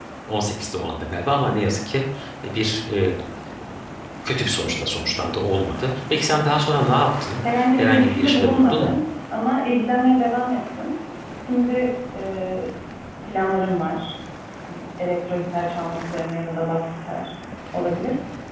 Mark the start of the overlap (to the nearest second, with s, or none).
7 s